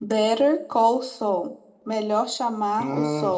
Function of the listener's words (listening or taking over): listening